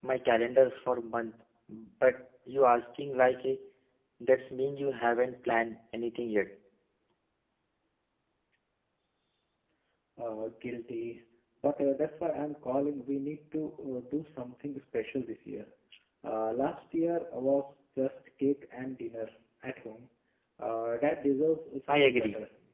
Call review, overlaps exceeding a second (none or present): none